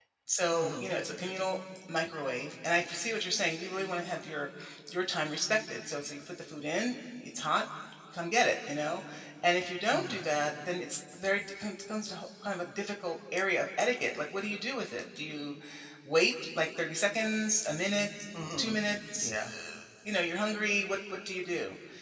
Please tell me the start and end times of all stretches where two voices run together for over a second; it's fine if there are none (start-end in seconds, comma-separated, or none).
none